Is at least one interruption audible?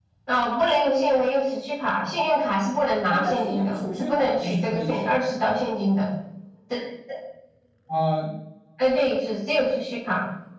Yes, from 3.1 s

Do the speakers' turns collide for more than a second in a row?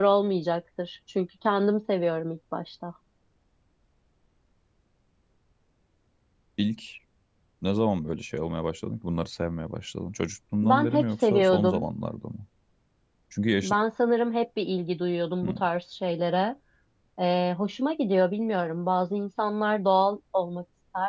Yes, from 10.6 s

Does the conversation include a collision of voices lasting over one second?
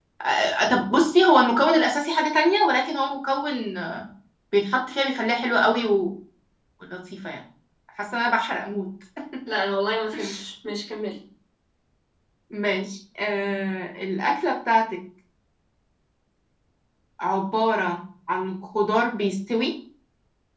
No

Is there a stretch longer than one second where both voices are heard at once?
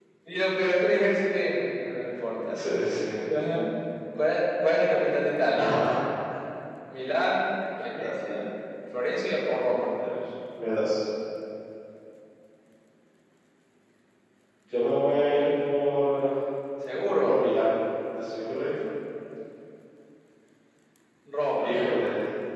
No

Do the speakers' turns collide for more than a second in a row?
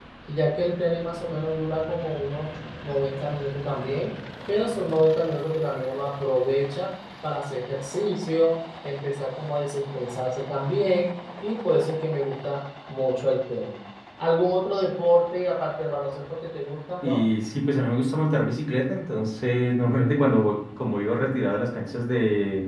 No

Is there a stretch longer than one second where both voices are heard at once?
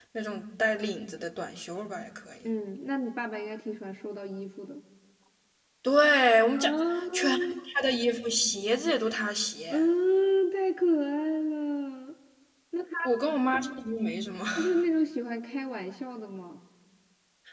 No

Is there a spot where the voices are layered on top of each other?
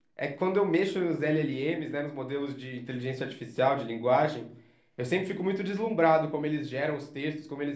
No

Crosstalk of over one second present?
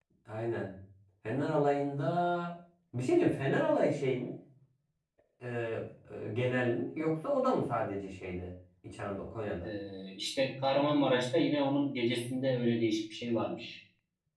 No

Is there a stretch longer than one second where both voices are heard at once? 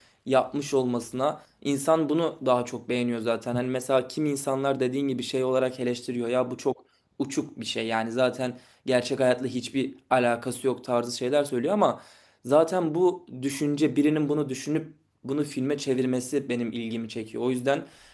No

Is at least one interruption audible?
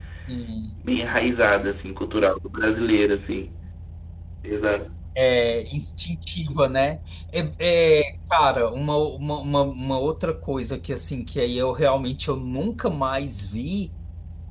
No

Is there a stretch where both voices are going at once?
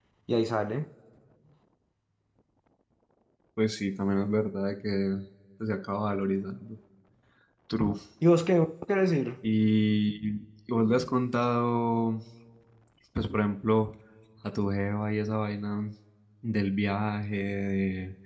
No

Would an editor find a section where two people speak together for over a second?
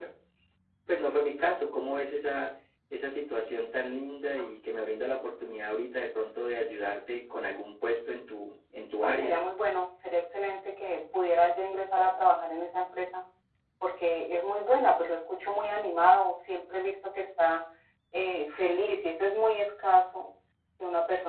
No

